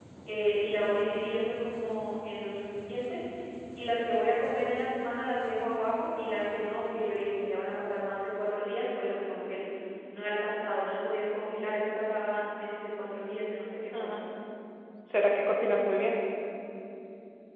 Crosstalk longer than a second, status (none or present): none